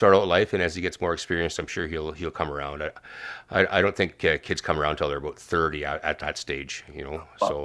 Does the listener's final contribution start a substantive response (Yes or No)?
Yes